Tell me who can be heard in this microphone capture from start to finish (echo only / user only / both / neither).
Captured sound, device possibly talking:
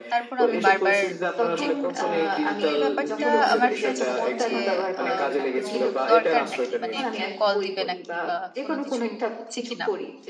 both